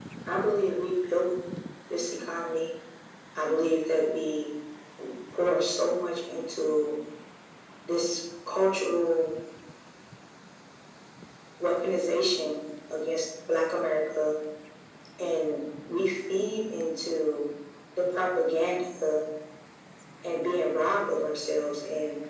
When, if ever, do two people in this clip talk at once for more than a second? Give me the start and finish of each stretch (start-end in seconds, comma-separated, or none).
none